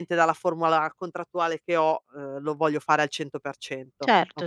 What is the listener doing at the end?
taking over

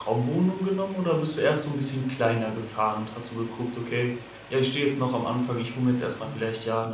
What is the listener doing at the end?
listening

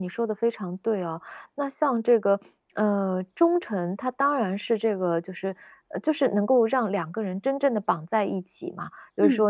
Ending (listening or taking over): listening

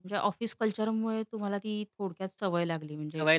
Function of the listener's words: taking over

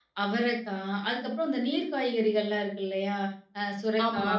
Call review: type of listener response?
listening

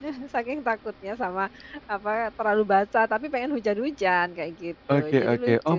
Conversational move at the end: taking over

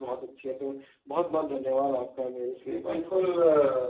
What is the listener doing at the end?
taking over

